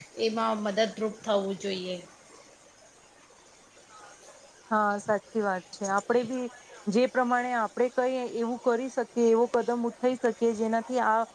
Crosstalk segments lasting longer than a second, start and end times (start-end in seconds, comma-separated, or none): none